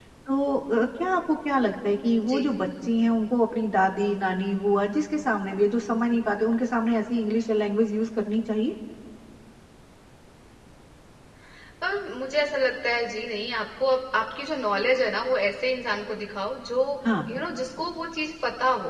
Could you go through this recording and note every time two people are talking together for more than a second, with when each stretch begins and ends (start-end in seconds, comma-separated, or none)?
none